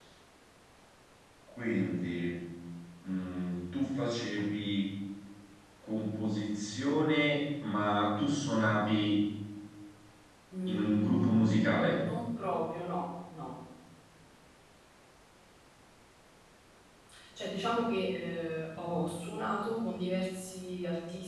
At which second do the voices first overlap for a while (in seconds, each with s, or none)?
10.7 s